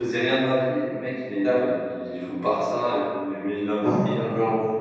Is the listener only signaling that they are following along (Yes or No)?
Yes